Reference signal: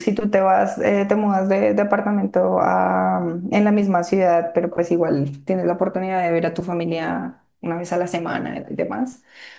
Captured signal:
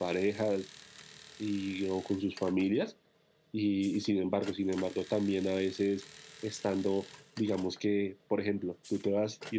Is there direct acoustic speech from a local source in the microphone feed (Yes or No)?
Yes